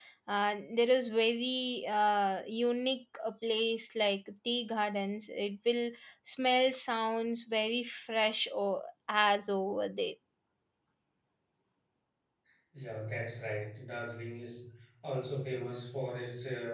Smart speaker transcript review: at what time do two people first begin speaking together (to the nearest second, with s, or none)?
none